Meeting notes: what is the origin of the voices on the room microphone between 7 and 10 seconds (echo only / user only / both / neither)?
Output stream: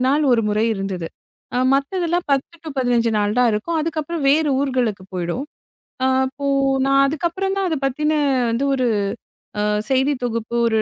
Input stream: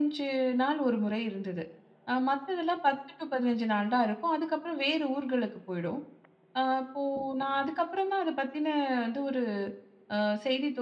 echo only